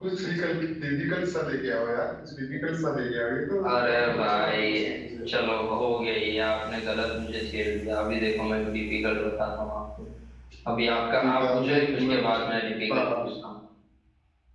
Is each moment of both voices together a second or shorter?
No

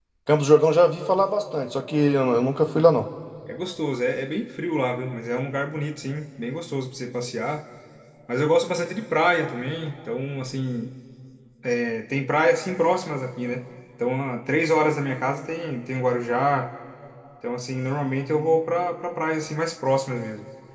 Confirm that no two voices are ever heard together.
Yes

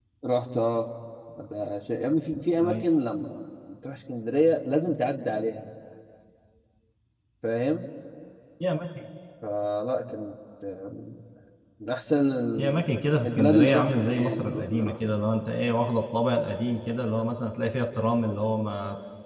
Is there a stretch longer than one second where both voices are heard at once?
Yes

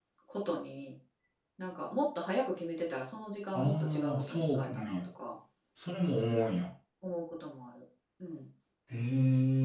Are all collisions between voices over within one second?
No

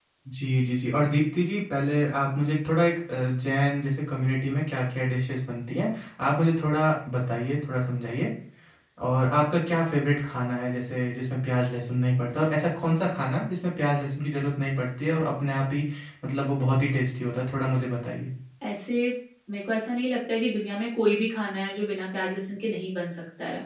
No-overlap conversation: Yes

